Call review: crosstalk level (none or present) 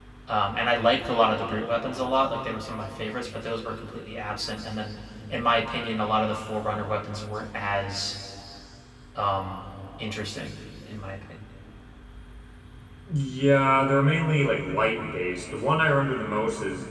none